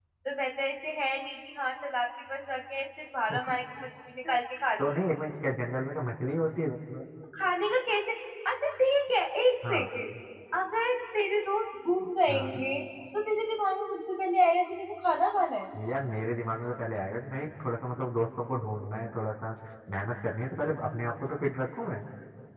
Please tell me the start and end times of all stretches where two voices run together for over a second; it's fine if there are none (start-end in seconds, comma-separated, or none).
none